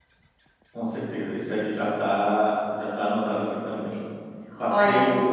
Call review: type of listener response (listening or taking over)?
listening